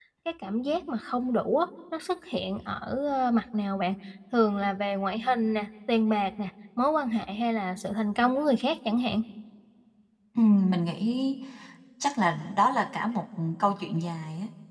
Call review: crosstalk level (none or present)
none